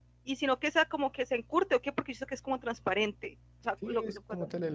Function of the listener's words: taking over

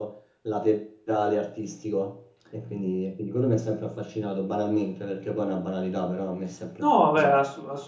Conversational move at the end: taking over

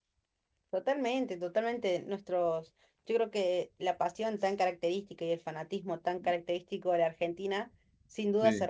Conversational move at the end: listening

